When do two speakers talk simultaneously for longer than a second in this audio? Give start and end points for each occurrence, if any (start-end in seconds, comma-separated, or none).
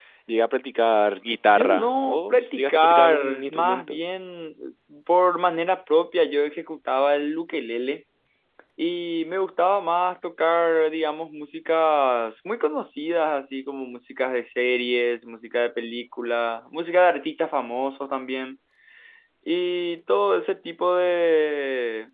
1.4-4.0